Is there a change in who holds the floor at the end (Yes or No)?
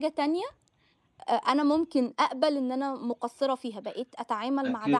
Yes